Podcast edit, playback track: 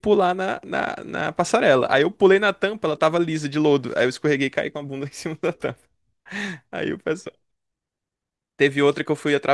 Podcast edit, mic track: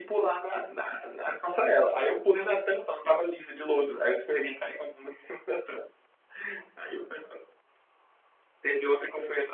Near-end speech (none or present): none